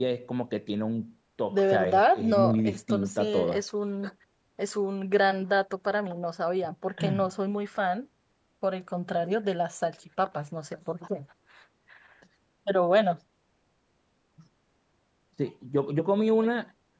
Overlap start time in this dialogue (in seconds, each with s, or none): 1.5 s